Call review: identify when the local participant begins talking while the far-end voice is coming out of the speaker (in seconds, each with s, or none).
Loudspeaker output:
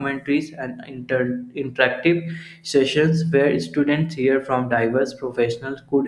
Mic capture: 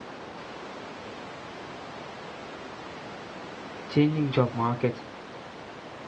3.9 s